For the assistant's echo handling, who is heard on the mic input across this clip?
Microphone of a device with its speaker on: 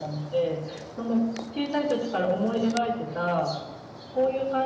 echo only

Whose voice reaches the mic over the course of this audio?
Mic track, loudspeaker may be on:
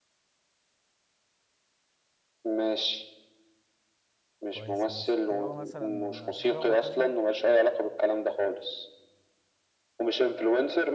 both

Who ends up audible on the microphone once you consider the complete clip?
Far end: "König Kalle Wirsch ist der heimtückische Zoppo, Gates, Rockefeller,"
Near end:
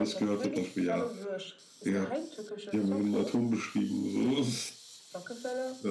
both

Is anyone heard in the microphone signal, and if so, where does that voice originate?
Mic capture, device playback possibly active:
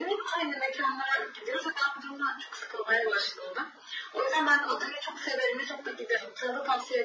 echo only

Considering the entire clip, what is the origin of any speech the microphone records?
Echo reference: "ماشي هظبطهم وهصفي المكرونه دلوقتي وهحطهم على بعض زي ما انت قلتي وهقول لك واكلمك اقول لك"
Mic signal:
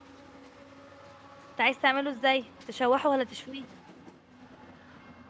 user only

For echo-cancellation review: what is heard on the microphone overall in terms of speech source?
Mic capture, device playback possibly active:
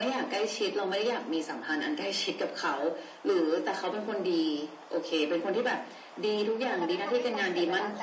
both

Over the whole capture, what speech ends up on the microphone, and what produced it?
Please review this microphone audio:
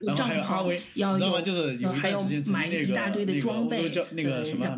echo only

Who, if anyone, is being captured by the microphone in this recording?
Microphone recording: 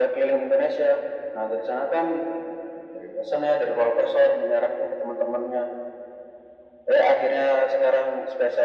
echo only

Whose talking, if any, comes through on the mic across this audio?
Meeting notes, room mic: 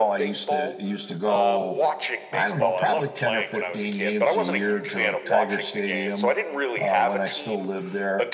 both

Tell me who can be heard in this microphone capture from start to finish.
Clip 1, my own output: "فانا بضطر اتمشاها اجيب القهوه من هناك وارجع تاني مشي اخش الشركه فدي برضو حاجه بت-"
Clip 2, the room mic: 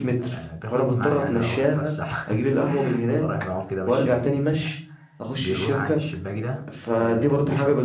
both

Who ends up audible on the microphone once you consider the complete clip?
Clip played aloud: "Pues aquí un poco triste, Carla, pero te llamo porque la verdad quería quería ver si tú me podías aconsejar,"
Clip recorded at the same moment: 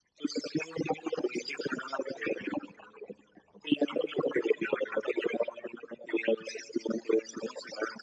echo only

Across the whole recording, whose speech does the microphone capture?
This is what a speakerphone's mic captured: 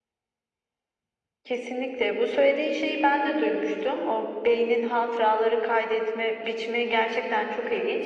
echo only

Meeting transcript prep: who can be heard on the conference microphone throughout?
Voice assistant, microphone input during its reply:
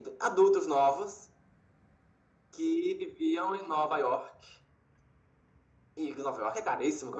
echo only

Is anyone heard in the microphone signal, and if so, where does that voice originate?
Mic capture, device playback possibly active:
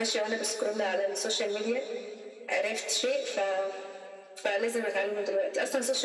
both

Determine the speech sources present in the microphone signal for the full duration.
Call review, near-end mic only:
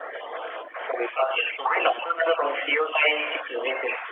echo only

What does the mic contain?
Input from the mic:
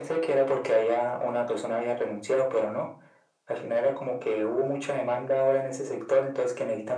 echo only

